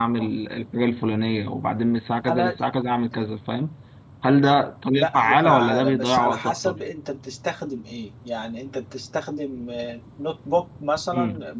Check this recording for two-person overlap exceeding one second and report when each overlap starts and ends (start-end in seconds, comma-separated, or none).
4.9-6.8